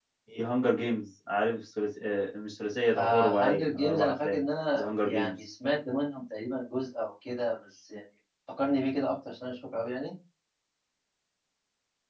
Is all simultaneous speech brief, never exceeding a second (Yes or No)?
No